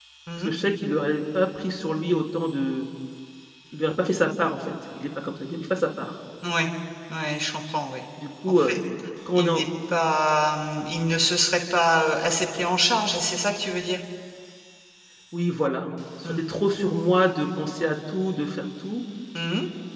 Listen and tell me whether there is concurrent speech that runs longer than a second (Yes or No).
No